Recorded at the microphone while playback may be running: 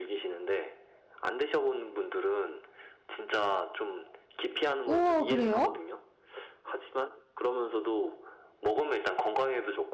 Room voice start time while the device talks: 4.8 s

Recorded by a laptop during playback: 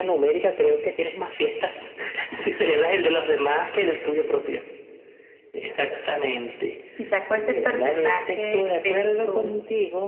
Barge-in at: 6.9 s

